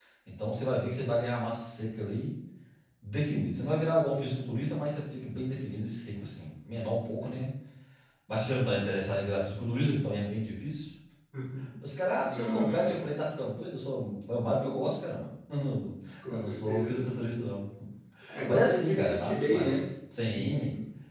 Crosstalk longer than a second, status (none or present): present